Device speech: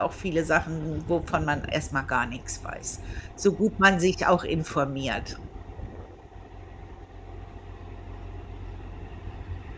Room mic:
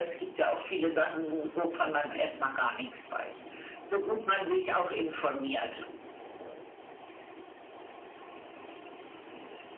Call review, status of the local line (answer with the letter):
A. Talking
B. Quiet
B